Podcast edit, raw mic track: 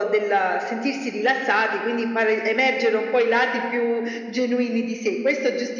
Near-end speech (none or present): none